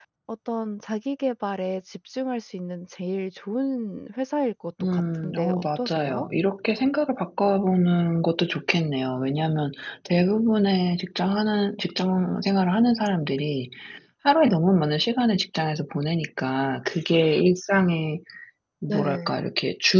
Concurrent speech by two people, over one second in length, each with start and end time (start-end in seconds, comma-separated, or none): 4.9-6.3